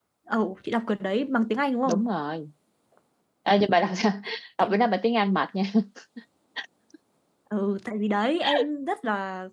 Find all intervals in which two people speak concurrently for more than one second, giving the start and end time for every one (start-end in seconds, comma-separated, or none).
none